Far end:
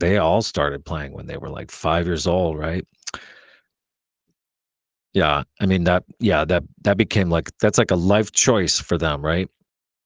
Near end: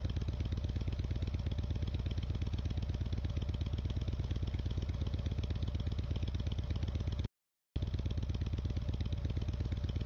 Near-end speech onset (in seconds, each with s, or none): none